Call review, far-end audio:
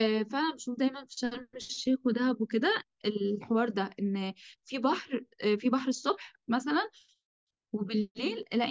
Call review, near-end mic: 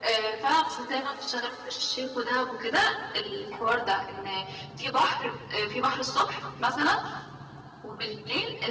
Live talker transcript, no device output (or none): none